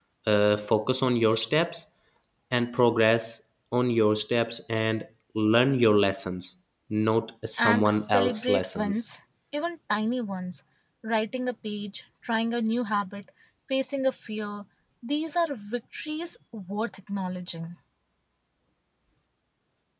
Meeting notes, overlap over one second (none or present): present